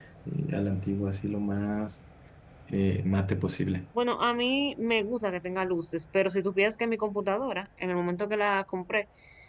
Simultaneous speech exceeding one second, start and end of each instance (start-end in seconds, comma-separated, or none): none